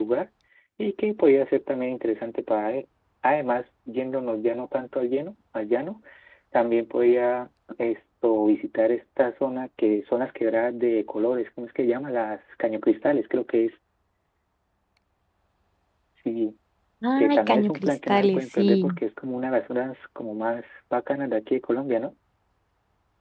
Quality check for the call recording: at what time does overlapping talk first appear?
17 s

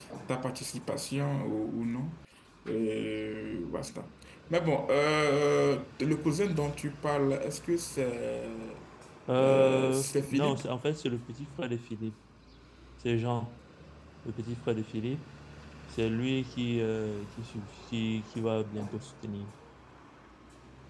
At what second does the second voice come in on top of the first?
9 s

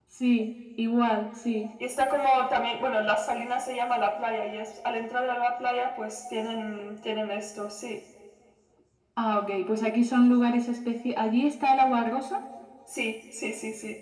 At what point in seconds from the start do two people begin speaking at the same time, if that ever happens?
none

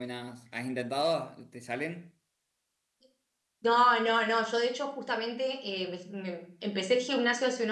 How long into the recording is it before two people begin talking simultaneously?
none

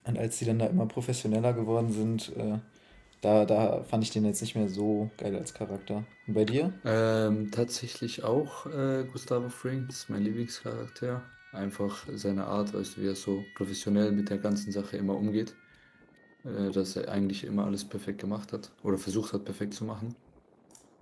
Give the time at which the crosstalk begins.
none

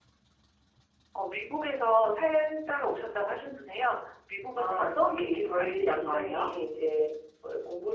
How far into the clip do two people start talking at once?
5 s

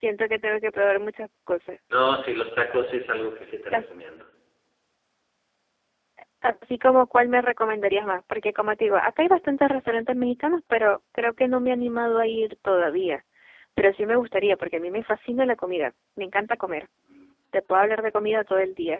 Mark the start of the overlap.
none

